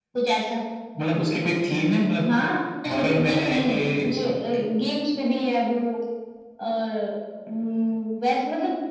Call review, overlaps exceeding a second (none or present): present